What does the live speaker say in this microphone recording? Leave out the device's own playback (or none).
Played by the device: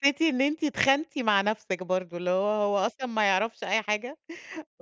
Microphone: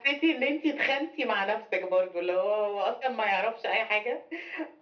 none